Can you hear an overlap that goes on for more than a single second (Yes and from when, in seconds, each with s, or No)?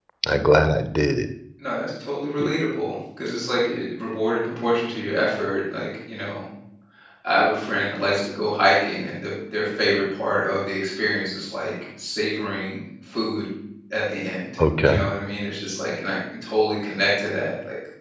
No